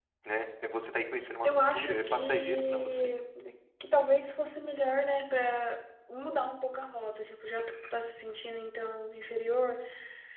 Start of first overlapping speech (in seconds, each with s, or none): 1.4 s